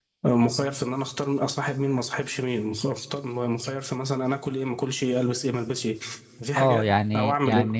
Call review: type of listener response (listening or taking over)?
taking over